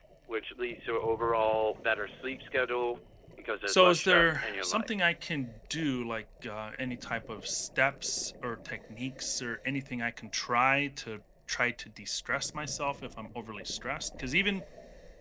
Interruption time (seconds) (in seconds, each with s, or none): 3.7 s